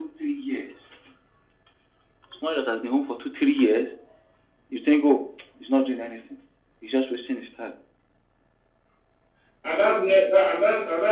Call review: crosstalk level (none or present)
none